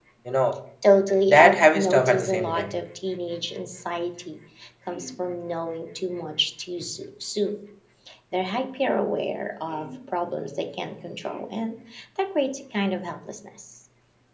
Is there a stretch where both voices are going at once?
Yes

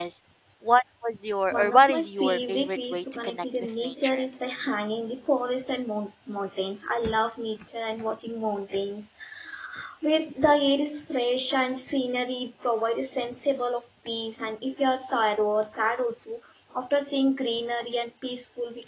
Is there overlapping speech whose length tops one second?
Yes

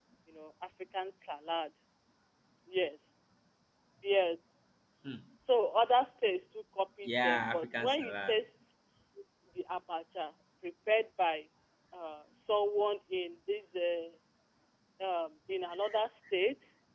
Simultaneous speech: Yes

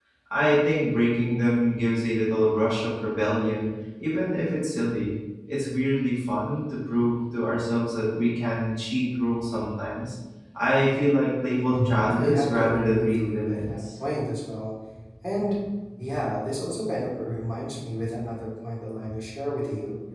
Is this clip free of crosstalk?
No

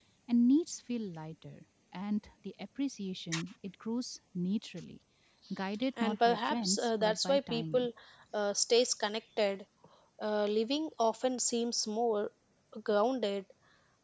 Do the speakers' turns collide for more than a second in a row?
Yes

